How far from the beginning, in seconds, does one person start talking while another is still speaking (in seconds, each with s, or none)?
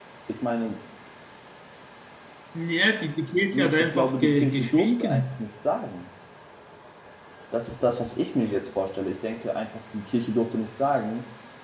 3.5 s